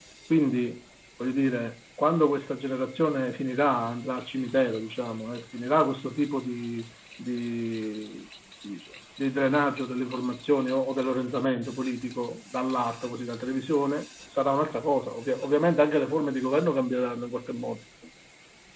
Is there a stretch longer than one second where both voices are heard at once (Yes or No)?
No